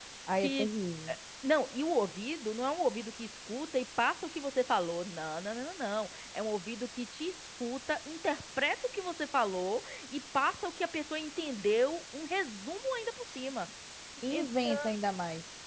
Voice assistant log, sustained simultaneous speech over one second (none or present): none